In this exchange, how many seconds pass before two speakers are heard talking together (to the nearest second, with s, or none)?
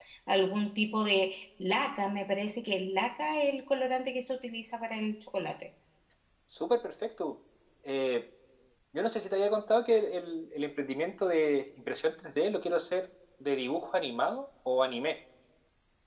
none